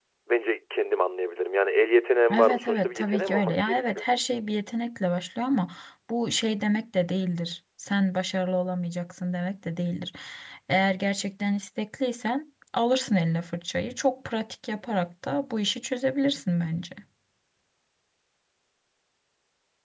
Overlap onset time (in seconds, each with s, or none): 2.3 s